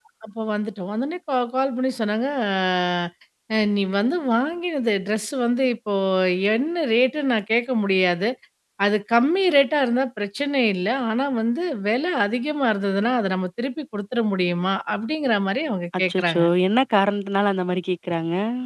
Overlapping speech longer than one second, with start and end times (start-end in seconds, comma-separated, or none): none